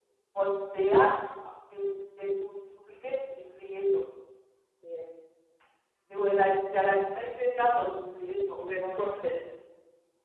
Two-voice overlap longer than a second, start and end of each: none

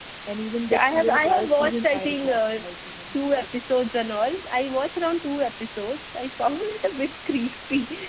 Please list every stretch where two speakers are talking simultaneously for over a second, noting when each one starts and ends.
0.7-2.6

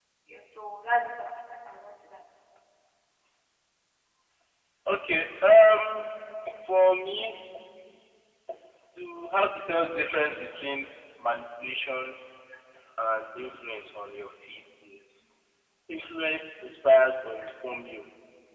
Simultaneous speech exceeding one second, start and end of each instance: none

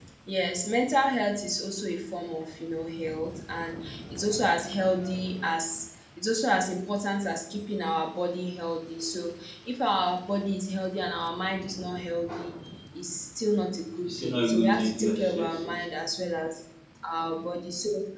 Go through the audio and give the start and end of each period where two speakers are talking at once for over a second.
14.0-16.0

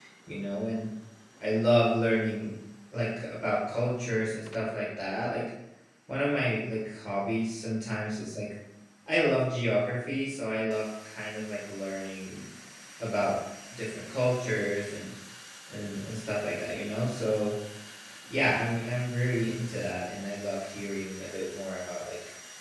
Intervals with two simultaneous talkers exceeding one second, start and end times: none

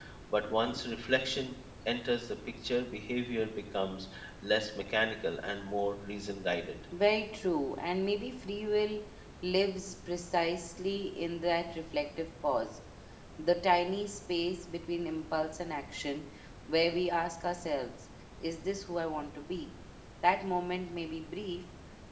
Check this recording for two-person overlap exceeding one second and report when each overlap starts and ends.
none

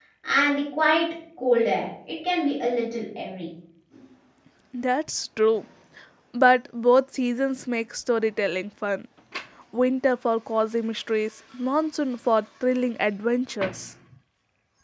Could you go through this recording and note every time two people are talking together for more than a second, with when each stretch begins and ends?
none

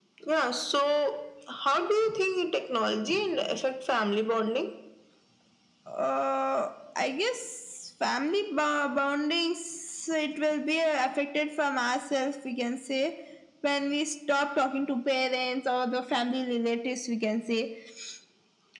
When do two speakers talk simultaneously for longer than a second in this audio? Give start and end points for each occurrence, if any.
none

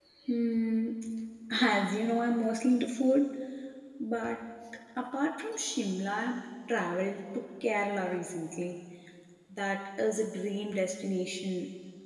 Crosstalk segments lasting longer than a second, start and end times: none

